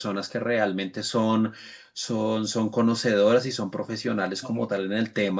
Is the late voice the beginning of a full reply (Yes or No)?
No